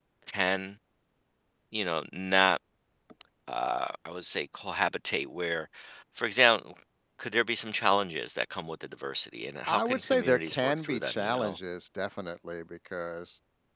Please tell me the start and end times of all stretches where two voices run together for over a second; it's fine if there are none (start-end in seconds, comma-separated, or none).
9.7-11.6